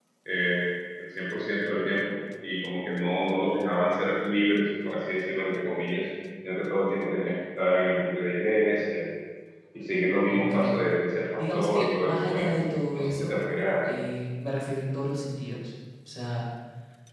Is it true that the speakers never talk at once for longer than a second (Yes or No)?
No